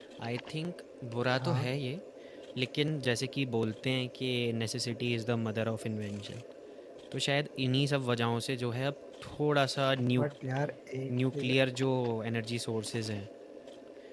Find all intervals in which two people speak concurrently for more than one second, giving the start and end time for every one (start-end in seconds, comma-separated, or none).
none